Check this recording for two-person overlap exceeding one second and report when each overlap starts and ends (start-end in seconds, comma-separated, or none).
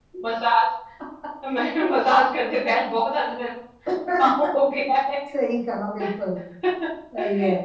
none